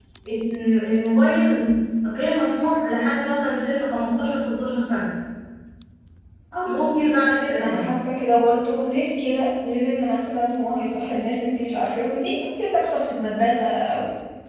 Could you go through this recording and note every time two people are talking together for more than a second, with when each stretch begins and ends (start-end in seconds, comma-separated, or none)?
none